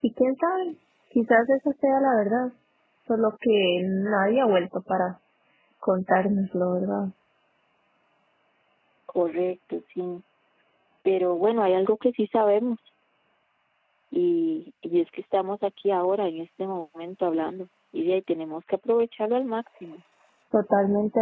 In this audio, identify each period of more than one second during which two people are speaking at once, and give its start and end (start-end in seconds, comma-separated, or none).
none